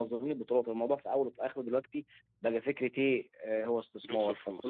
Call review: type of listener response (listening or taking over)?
listening